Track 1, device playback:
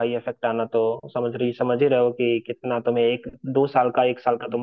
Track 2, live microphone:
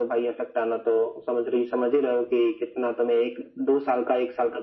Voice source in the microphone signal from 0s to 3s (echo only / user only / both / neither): echo only